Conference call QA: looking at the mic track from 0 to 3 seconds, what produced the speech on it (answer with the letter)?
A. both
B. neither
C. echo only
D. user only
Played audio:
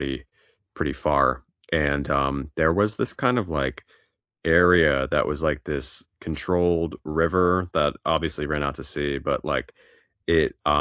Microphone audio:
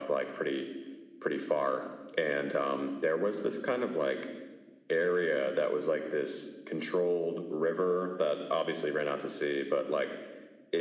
C